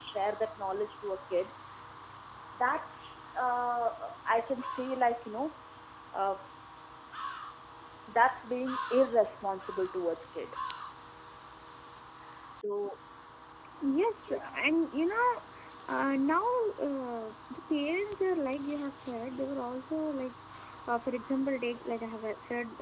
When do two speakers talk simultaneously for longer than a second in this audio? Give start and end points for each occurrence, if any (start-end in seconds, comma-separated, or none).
none